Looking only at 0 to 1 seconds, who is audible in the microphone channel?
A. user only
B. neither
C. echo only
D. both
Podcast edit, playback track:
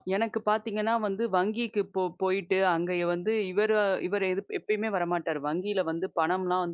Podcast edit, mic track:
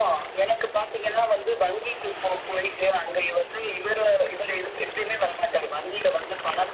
C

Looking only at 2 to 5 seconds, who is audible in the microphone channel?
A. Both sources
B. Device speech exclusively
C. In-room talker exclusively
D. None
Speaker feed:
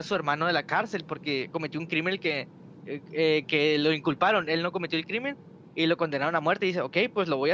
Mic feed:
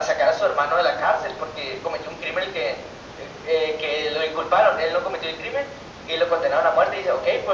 B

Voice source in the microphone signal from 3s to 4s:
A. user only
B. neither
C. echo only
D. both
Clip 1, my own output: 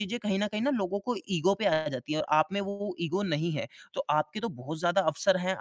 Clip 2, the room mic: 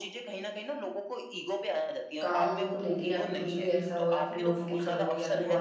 D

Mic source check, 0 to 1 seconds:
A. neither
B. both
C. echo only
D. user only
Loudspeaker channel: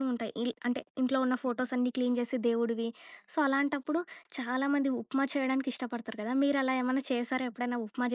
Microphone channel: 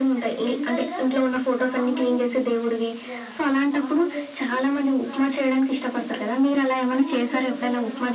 B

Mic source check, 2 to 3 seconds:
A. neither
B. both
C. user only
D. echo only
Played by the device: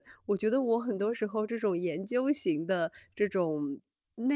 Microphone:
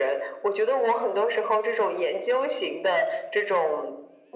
D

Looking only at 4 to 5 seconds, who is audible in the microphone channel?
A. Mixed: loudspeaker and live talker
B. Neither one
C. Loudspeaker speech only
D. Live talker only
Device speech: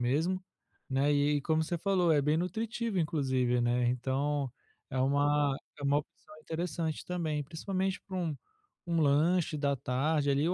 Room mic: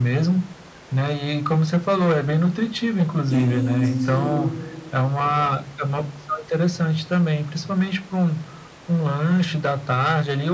A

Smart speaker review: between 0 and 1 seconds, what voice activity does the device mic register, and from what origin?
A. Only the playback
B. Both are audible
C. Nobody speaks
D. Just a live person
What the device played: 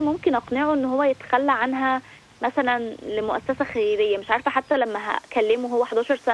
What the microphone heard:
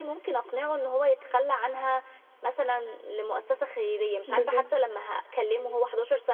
A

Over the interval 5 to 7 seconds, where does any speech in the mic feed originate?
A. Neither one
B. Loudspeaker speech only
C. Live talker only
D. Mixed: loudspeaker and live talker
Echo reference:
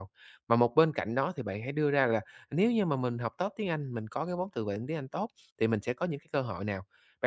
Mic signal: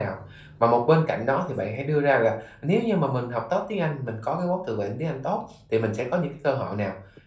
B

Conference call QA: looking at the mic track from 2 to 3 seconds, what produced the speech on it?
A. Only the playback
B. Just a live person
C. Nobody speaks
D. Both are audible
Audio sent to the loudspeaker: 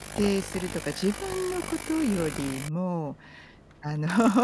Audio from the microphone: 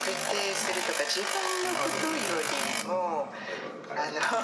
D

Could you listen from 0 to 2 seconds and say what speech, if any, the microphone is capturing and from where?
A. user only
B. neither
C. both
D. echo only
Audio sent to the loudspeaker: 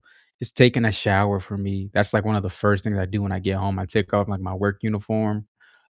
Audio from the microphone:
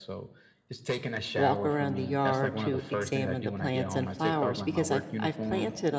C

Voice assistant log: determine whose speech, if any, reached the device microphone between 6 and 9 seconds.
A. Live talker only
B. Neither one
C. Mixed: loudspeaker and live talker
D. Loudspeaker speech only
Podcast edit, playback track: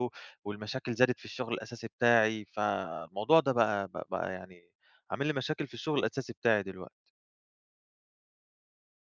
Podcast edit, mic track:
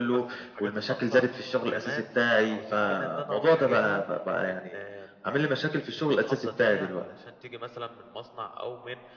C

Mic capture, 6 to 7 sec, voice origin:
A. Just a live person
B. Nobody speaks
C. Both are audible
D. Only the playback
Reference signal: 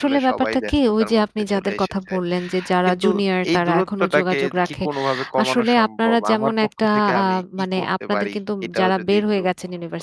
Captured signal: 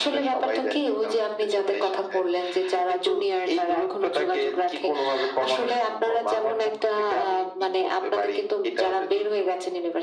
D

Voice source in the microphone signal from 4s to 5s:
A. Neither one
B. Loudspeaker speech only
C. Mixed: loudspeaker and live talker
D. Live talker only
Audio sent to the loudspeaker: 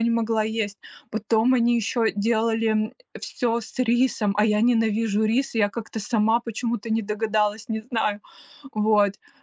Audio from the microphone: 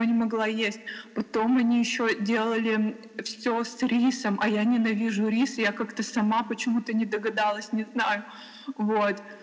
B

